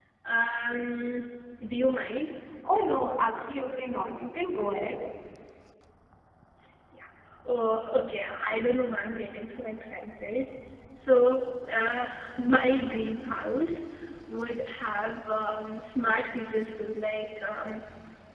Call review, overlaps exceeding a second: none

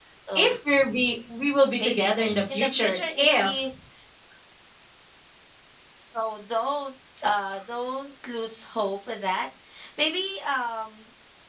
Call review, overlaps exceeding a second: present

